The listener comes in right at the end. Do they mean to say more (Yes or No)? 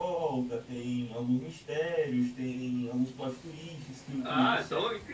Yes